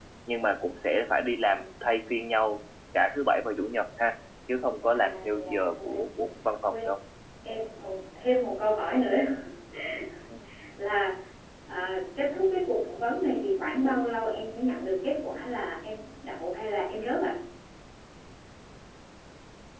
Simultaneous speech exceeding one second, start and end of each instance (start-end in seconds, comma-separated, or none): 4.9-6.3